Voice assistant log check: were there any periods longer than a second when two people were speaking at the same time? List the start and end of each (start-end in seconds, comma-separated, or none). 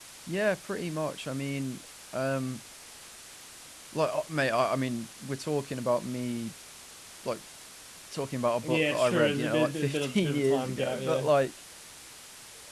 8.6-11.3